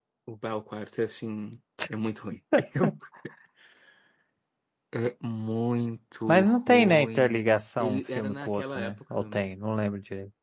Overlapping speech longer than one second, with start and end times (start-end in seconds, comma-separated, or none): 6.3-9.2